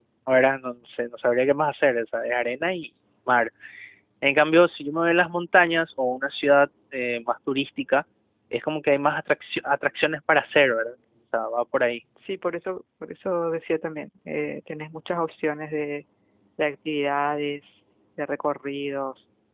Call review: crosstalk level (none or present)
none